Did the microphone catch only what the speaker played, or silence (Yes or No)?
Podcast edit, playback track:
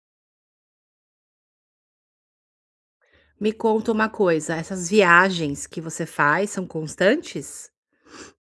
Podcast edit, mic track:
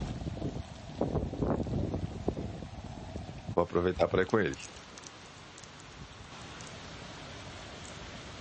No